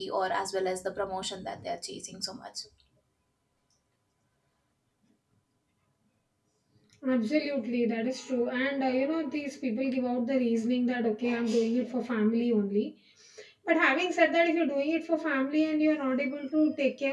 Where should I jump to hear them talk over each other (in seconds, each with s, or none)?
none